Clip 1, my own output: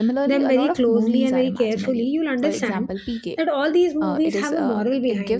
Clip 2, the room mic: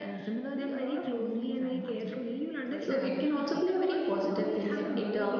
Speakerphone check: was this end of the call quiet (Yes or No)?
No